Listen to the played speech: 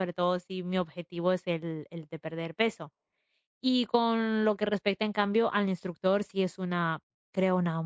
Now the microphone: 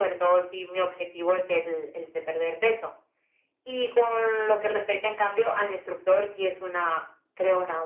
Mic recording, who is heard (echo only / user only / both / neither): echo only